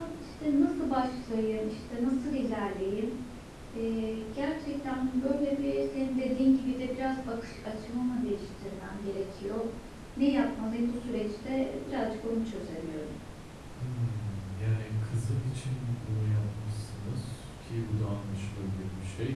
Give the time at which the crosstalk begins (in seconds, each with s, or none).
none